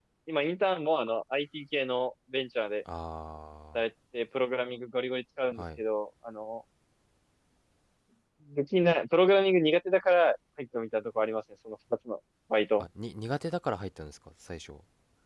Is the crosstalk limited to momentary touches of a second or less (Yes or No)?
Yes